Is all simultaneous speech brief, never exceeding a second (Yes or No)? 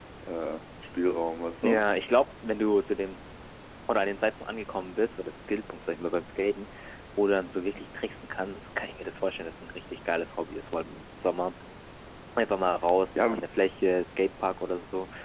Yes